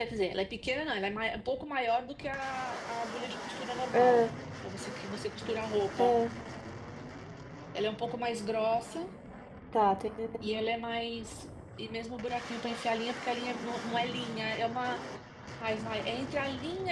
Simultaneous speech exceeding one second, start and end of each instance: none

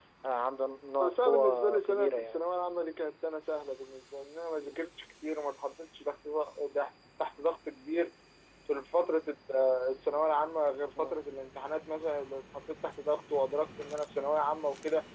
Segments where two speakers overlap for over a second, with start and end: 1.0-2.4

